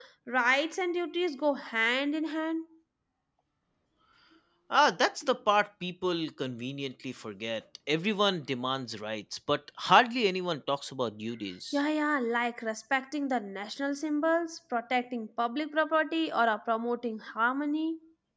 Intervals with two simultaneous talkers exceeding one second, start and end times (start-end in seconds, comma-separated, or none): none